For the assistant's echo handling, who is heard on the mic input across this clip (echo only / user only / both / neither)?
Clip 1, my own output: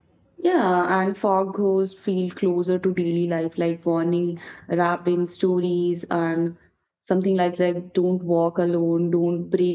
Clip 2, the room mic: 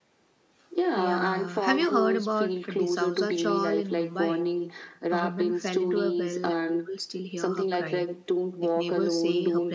both